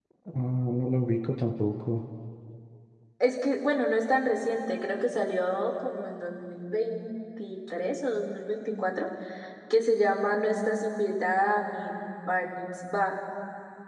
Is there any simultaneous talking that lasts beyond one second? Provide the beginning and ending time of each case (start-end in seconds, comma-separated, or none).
none